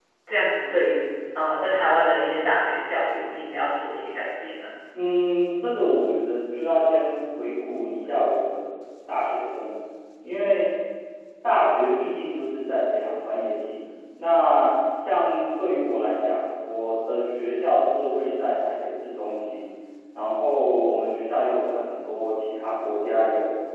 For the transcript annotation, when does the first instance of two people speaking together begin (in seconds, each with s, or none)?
none